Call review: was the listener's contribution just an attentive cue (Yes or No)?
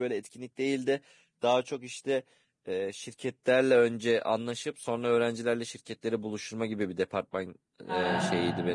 Yes